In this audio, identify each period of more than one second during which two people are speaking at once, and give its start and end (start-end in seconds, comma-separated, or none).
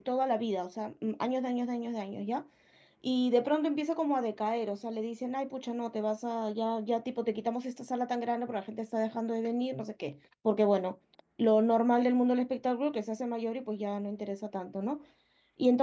none